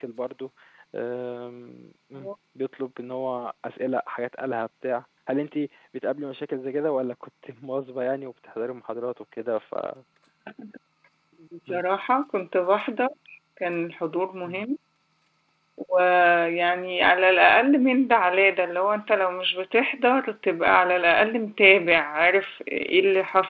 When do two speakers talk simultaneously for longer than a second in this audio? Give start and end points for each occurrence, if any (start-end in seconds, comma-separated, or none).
none